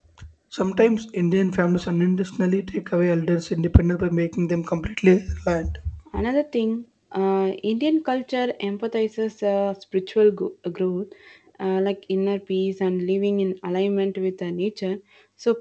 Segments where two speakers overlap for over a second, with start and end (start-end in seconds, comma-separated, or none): none